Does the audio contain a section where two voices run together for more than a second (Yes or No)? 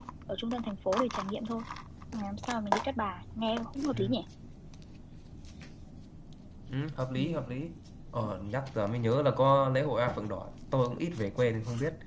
No